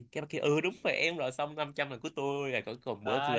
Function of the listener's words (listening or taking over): taking over